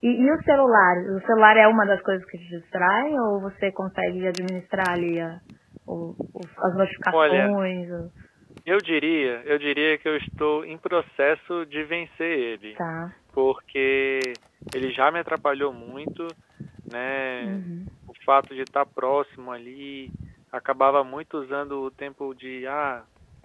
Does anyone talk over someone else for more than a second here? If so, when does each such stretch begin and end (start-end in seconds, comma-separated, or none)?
none